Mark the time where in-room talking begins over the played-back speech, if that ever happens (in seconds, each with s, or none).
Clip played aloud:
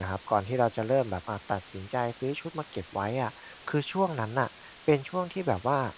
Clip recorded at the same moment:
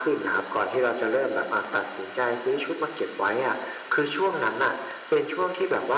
none